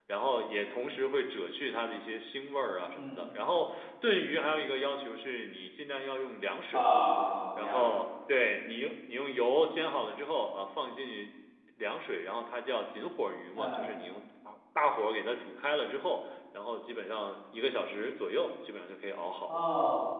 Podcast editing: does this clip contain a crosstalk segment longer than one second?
No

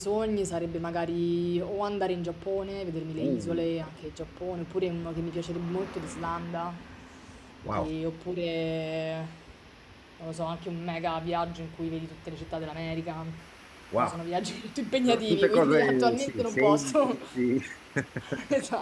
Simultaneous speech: Yes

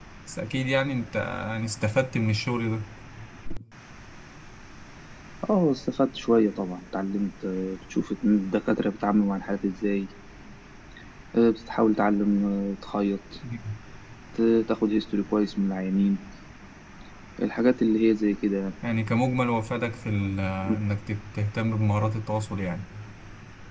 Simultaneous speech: No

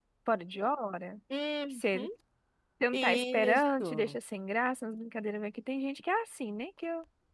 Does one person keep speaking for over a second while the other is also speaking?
Yes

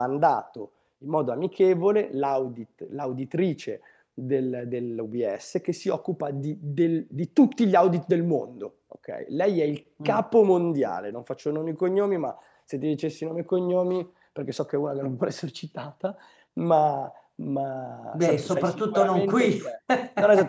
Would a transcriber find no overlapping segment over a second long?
No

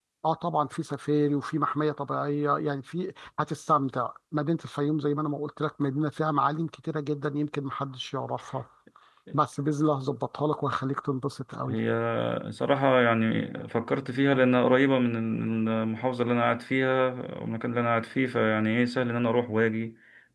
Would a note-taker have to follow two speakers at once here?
No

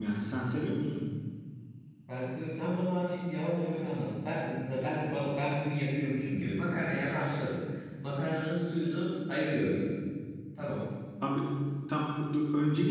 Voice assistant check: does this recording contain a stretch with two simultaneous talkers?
No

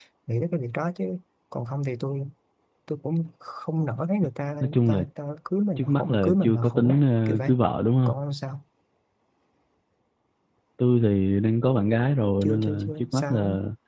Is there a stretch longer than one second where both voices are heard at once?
Yes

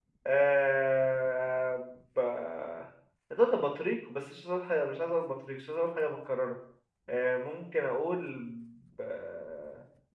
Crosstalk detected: No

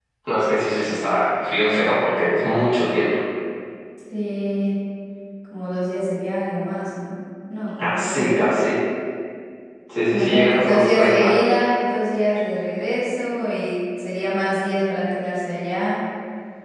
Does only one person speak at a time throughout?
No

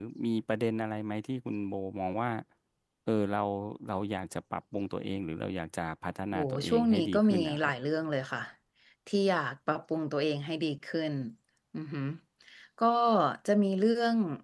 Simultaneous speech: Yes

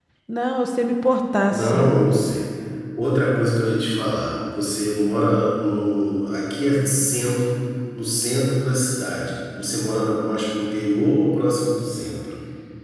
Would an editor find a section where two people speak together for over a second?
No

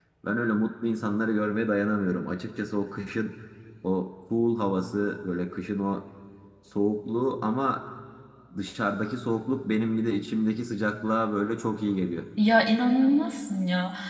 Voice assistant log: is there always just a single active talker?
Yes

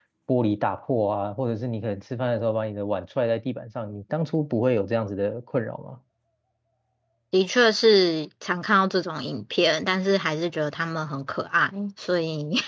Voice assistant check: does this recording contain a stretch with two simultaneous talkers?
No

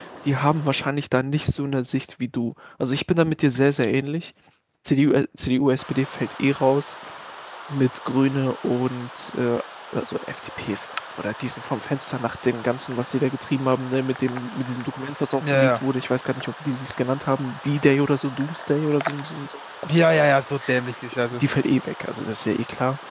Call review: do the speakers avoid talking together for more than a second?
Yes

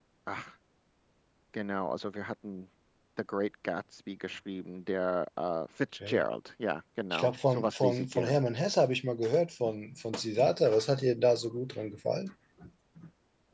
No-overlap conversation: No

